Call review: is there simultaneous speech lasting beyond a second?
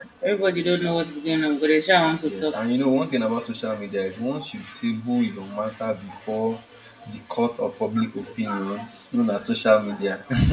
No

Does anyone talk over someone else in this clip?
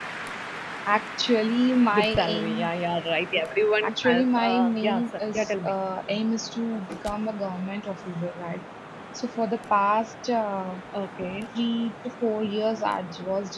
Yes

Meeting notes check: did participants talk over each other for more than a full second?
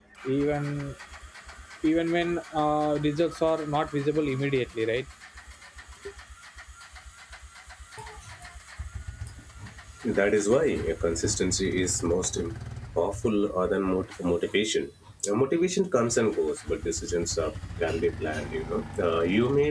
No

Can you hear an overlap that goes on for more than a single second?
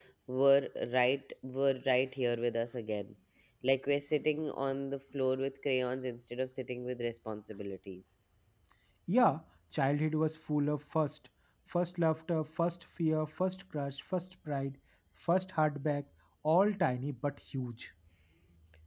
No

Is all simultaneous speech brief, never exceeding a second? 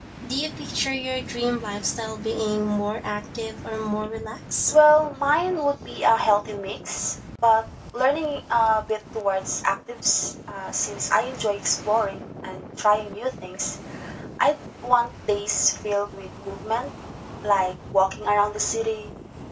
Yes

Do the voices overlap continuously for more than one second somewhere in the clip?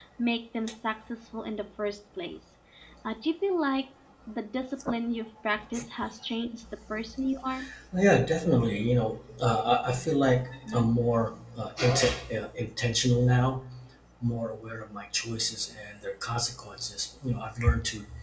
No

